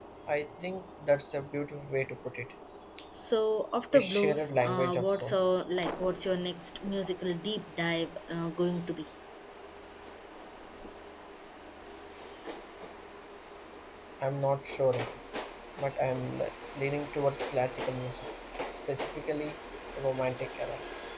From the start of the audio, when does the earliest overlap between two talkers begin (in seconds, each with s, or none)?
3.9 s